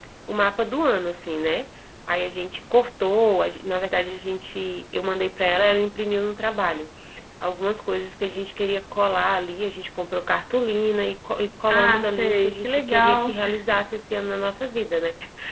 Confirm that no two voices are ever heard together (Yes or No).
No